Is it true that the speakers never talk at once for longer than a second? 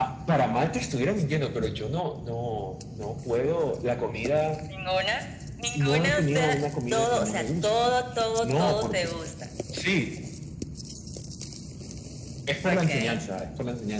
No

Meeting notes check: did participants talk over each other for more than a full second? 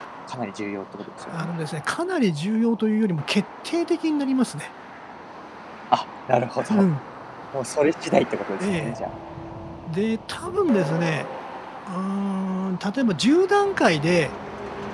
No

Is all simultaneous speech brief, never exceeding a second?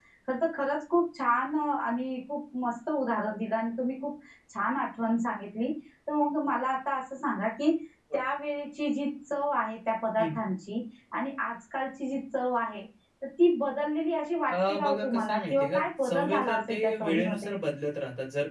No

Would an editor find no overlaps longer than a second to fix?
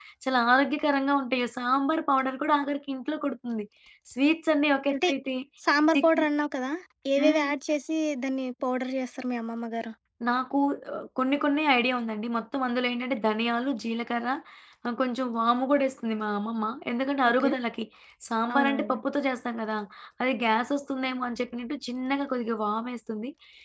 Yes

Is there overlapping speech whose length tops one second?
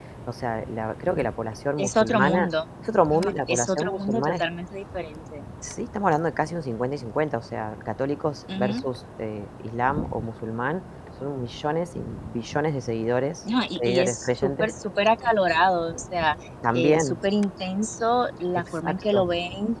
Yes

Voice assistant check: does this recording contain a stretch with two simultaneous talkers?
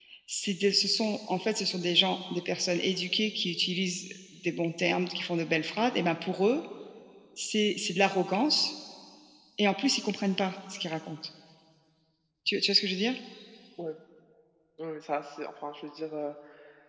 No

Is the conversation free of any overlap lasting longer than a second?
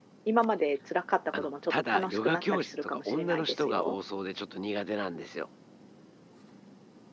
No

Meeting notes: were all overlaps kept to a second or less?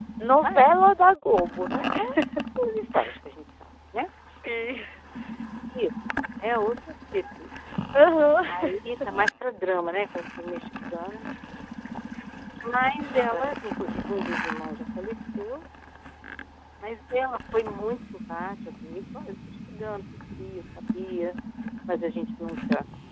Yes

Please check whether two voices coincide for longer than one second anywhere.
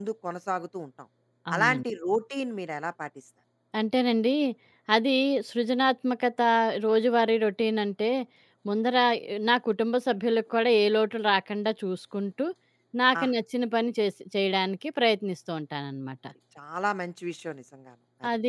No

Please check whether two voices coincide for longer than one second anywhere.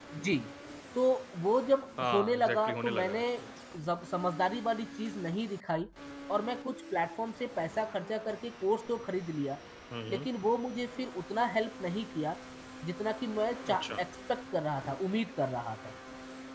Yes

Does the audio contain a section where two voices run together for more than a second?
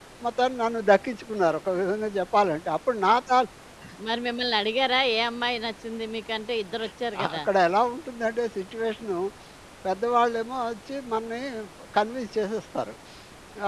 No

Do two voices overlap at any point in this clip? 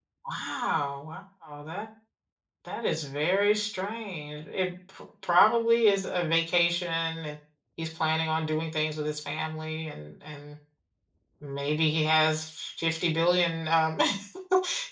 No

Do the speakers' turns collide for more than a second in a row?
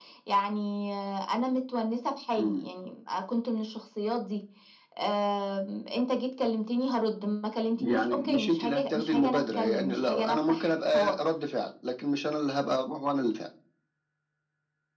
Yes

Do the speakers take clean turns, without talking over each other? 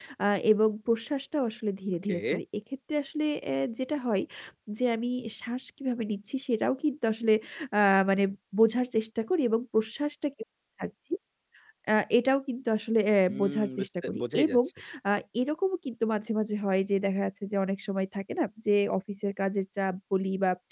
No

